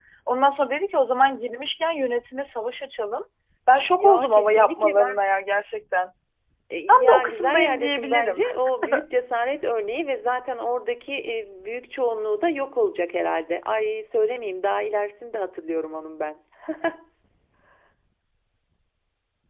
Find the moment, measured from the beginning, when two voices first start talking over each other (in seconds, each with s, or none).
3.9 s